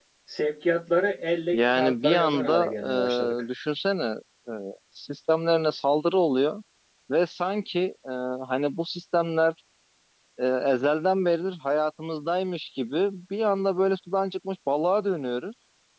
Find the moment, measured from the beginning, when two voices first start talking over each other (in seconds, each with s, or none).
1.5 s